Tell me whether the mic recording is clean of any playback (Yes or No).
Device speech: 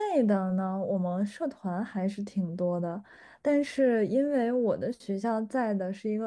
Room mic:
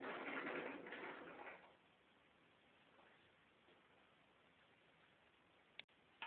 Yes